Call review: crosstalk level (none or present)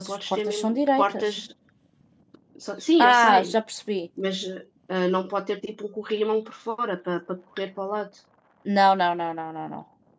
present